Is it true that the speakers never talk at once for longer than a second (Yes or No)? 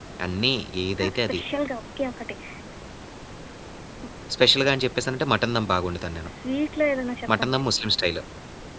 Yes